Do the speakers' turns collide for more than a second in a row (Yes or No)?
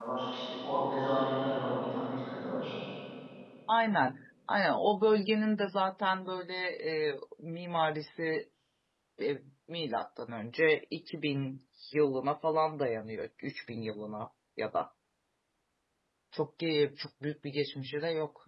No